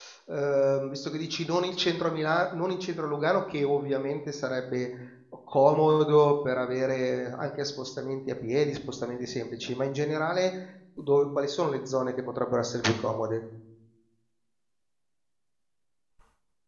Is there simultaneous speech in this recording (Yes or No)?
No